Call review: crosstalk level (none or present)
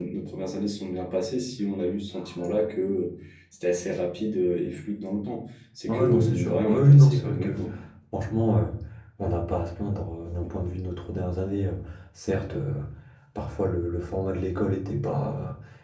present